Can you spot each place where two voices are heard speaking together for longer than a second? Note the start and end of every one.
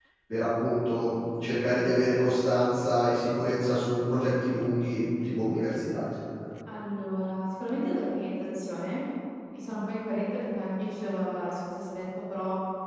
none

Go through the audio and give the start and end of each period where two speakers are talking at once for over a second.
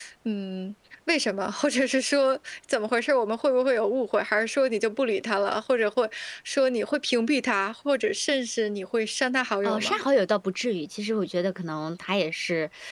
none

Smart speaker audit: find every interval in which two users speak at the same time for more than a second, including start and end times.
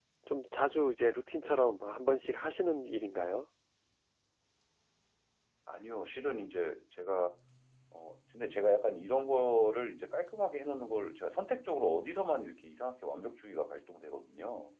none

